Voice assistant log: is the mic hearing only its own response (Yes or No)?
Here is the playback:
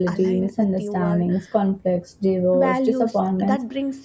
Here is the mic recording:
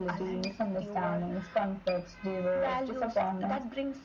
Yes